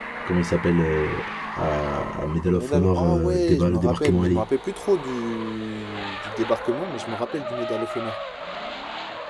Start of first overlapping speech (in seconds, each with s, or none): 2.5 s